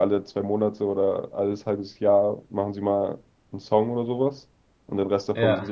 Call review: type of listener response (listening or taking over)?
listening